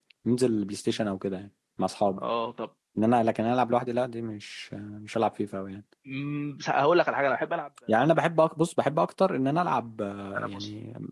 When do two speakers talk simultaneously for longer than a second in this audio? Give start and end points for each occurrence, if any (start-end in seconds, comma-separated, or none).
none